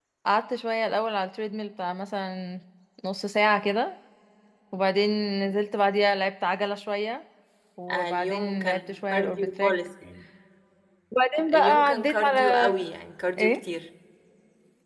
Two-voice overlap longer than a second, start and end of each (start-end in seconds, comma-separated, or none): 7.9-9.7, 11.5-12.7